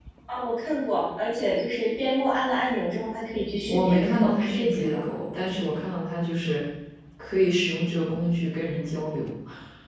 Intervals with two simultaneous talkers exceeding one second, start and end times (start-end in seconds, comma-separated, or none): 3.6-5.1